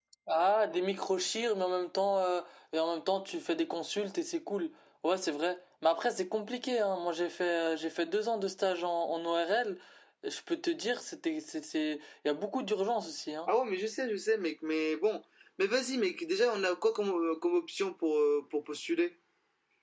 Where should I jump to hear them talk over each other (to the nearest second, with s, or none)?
none